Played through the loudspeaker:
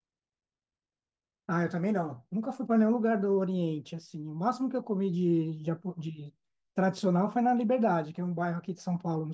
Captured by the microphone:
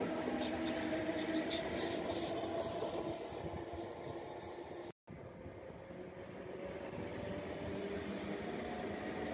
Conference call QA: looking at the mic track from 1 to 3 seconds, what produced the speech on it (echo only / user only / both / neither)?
neither